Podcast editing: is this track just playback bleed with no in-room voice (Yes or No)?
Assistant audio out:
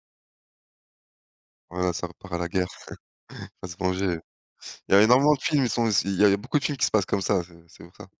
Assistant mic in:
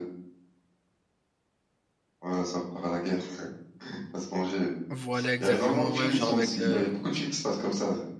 No